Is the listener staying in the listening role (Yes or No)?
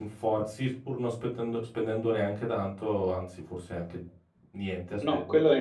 No